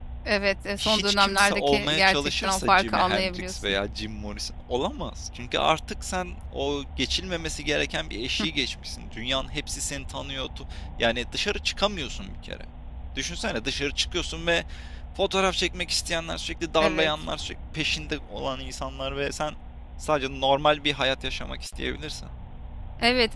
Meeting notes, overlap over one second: present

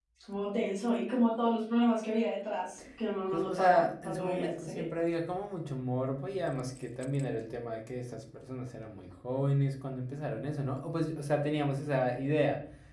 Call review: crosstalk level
present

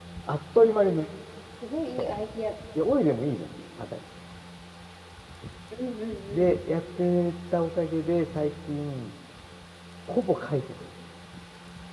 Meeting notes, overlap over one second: none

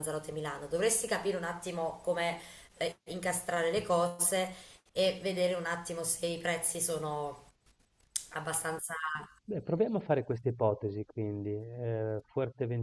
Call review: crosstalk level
none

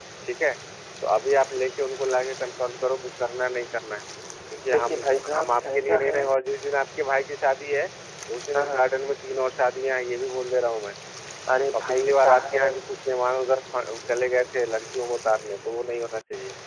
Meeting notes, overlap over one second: present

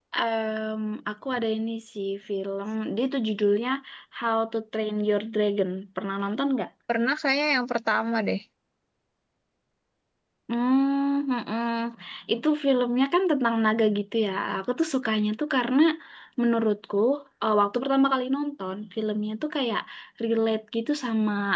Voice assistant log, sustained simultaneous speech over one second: none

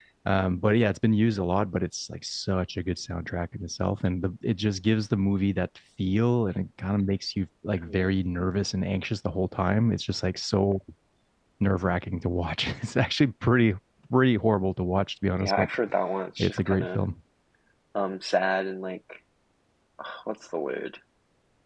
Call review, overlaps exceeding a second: none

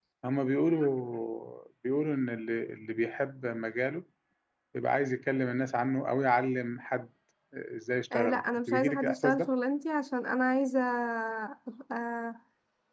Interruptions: present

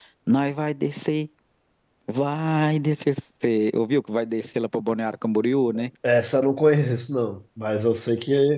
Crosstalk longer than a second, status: none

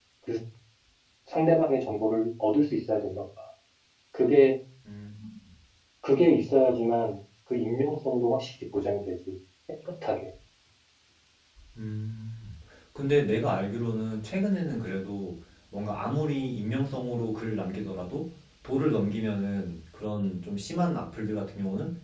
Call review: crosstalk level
none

